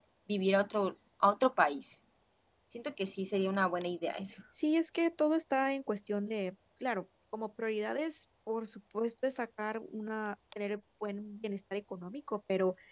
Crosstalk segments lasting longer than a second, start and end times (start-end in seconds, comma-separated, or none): none